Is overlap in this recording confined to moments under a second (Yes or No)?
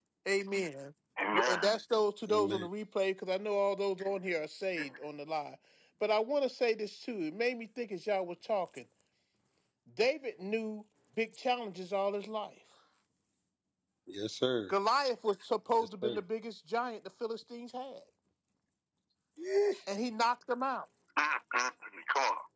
Yes